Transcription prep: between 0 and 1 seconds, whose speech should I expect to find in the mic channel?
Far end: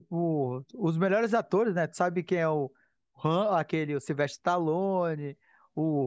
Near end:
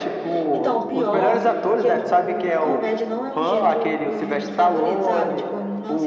both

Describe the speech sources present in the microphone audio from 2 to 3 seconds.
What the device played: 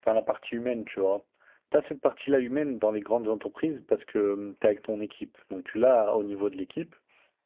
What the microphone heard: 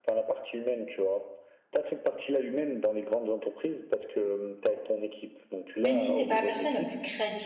echo only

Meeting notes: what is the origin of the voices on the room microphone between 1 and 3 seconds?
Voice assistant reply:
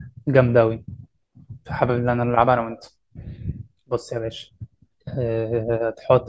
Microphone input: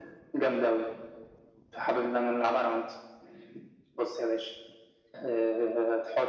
echo only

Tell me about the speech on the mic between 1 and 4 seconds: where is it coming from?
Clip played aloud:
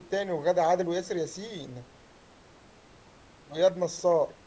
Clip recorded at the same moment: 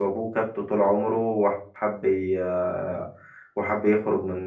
user only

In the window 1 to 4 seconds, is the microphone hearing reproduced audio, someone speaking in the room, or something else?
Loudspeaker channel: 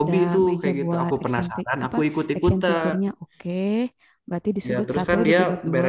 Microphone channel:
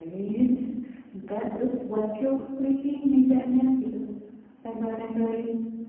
user only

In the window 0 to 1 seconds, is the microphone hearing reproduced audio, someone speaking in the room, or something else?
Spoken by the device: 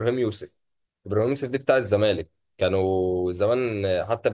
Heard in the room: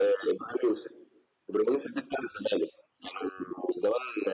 echo only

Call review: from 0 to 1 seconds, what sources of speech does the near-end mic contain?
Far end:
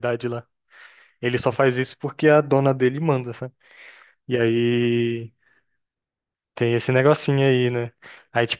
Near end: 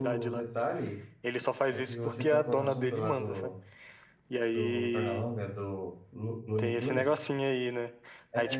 both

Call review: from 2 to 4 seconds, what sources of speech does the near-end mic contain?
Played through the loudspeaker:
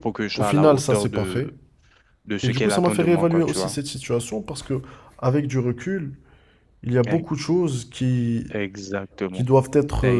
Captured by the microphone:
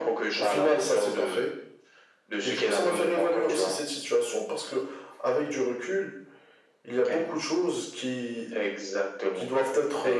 echo only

